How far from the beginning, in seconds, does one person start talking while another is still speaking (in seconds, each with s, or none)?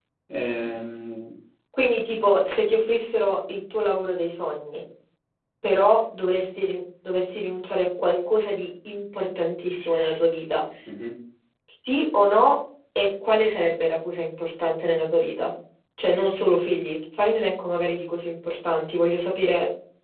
none